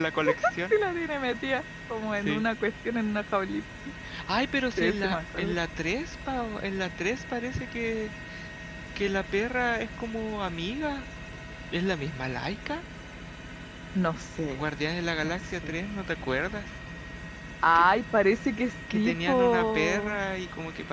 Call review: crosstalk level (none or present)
present